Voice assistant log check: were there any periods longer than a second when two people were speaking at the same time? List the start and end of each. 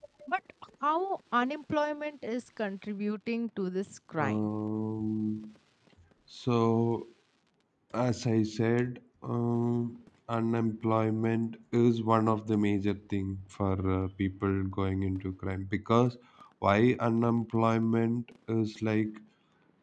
none

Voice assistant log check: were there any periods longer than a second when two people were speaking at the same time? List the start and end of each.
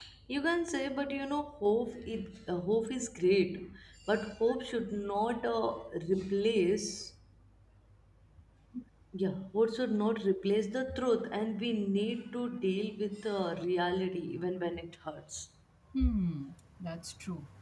none

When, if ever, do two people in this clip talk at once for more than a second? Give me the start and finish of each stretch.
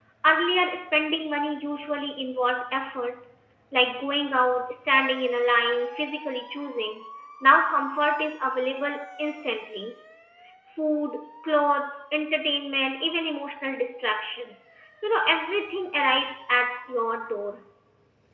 none

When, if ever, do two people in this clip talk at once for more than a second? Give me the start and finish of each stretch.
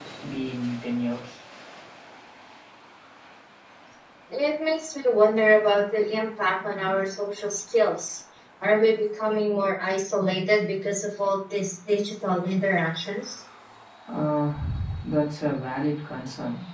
none

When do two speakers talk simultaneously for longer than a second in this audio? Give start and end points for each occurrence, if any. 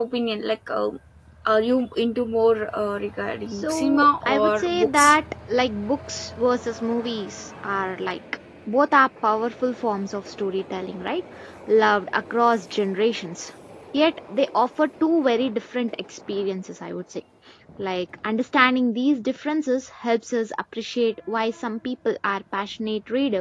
3.5-5.2

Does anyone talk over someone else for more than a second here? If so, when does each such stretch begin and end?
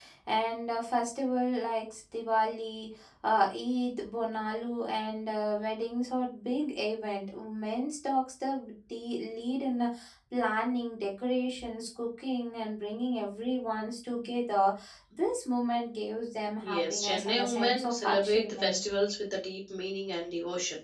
16.6-18.8

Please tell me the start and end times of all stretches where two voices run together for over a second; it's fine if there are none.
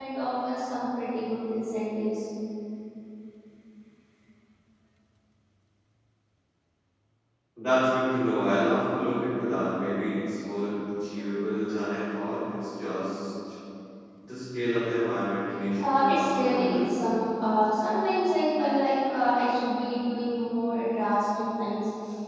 15.8-17.0

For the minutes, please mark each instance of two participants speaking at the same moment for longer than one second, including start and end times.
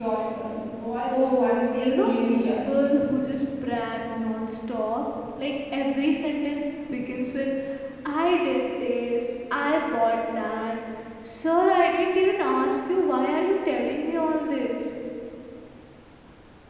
1.1-2.8

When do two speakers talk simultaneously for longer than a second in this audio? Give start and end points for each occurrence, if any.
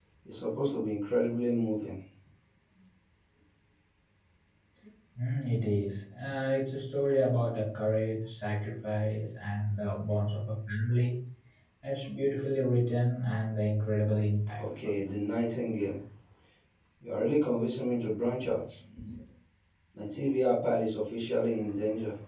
none

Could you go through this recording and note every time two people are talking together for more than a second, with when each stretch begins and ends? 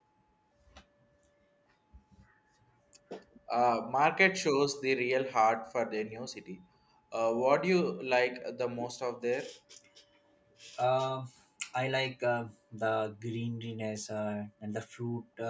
none

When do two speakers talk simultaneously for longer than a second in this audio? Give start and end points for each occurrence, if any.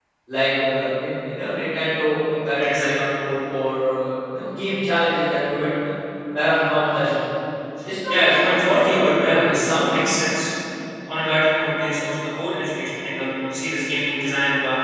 8.1-10.1

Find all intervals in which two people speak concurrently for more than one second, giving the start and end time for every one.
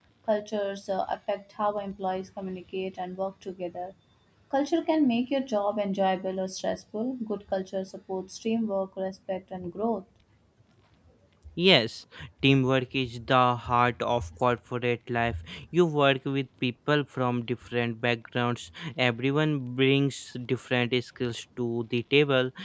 none

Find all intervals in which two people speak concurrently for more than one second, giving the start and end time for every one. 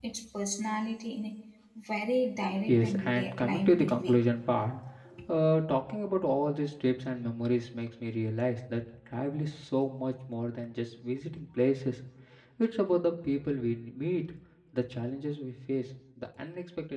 2.7-4.1

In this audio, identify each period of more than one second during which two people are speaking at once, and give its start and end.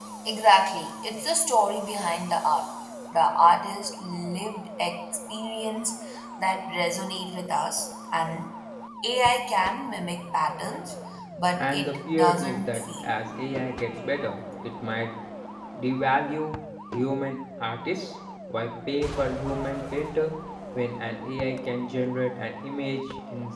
11.6-13.1

